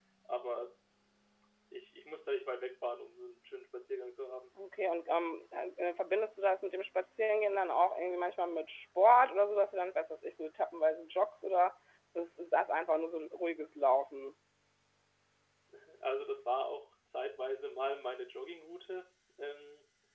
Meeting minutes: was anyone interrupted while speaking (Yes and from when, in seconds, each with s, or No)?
No